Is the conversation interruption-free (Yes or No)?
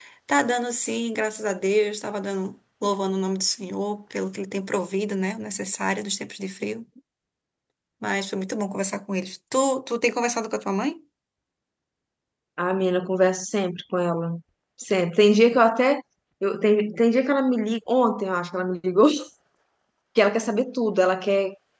Yes